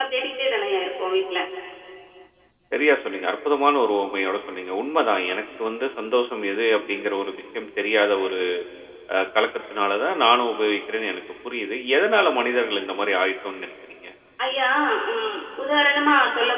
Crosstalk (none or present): none